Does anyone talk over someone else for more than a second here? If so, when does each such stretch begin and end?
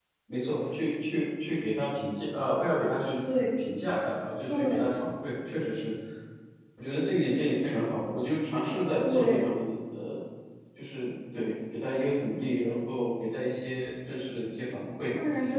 none

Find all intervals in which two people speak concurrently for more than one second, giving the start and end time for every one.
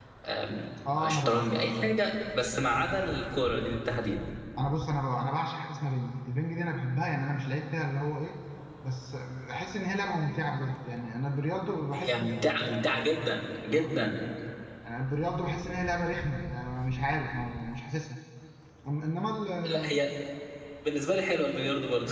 none

